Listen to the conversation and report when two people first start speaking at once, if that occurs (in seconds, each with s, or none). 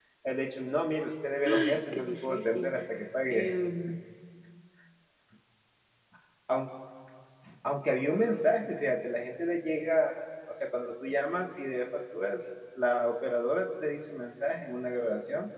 1.4 s